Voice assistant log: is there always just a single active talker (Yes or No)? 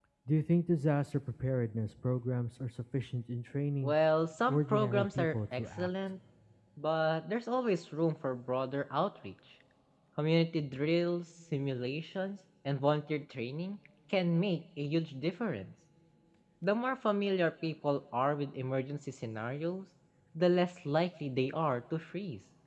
No